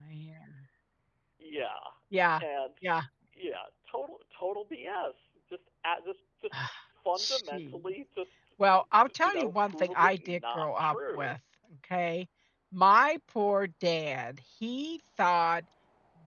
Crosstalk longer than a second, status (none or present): present